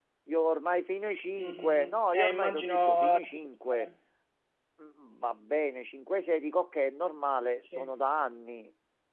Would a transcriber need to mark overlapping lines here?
Yes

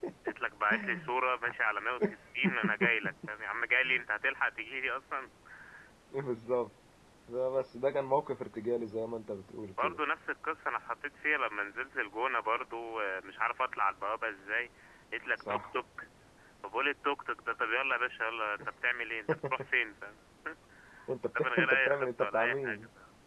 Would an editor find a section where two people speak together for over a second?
Yes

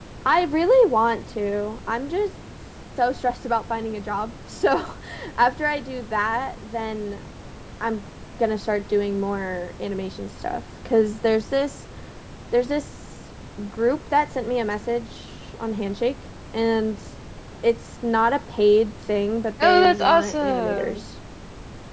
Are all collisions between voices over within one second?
No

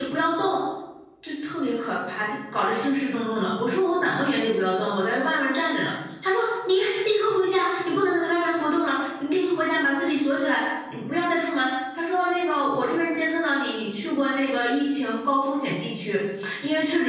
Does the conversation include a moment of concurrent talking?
No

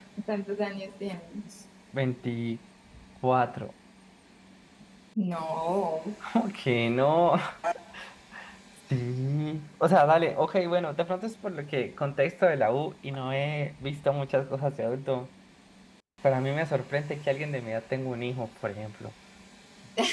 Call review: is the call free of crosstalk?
Yes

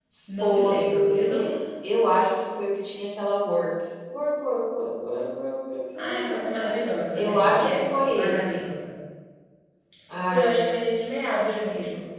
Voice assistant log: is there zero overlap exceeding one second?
No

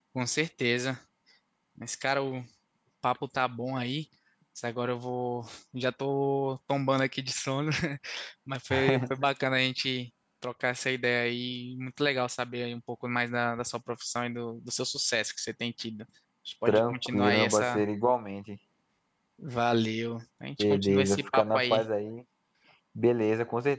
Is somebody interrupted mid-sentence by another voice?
Yes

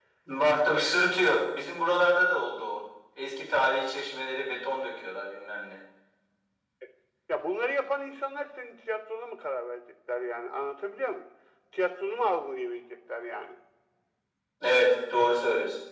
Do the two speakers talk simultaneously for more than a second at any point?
No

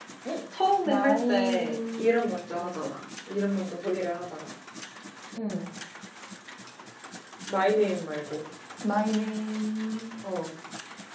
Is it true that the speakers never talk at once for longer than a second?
No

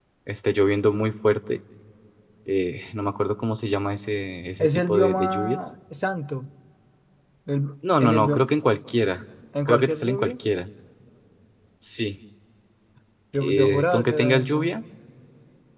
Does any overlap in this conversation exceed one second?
Yes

